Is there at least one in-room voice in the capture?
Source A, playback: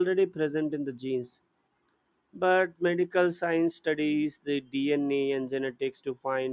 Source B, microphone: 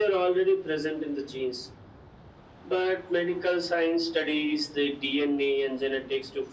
No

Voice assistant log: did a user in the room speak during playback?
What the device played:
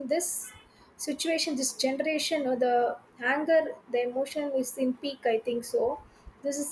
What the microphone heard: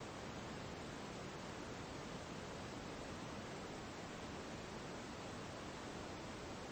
No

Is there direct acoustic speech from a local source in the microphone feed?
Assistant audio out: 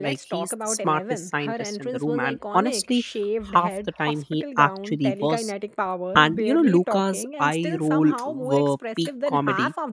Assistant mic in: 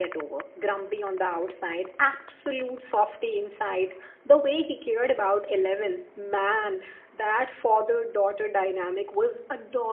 Yes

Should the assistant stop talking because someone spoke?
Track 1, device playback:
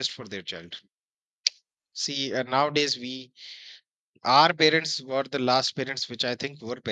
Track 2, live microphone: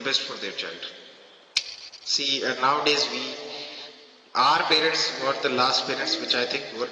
Yes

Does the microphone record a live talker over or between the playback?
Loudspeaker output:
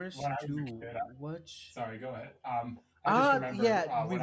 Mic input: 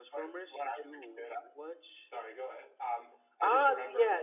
No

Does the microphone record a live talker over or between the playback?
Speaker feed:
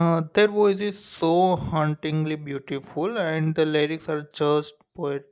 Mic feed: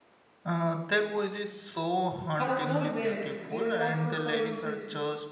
Yes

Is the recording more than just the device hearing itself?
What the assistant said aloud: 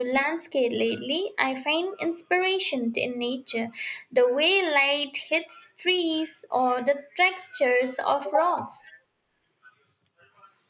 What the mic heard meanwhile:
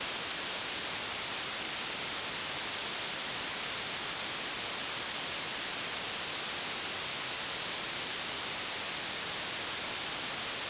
No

